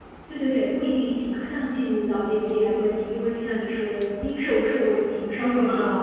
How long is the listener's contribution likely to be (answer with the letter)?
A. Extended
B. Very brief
A